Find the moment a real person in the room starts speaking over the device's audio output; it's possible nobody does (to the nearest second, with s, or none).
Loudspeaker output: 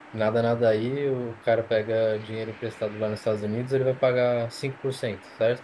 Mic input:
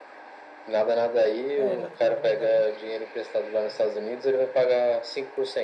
2 s